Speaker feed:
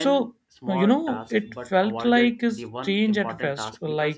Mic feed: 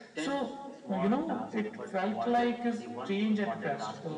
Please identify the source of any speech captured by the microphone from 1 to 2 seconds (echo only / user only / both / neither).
echo only